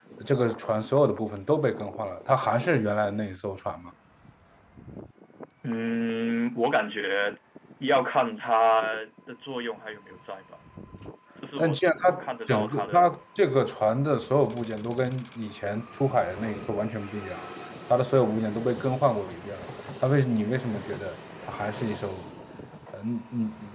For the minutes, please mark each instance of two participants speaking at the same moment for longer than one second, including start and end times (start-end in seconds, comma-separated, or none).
11.6-13.0